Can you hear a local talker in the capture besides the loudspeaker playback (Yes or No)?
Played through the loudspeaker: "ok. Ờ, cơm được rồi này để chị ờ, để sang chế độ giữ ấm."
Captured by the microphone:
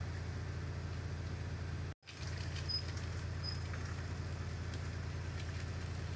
No